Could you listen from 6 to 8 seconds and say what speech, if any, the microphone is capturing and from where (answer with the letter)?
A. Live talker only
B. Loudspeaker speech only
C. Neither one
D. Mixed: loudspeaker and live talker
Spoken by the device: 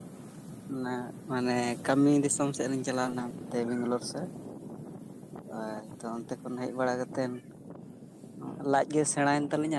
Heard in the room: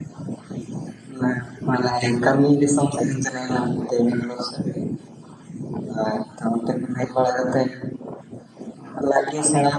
B